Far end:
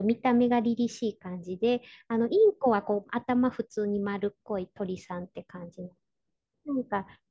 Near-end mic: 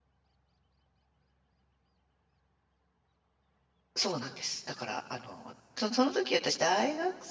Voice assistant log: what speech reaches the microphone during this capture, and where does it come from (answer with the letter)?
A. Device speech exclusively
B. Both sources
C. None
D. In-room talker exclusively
D